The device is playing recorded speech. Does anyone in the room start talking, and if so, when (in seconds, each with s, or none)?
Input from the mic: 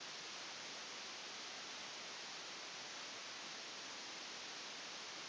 none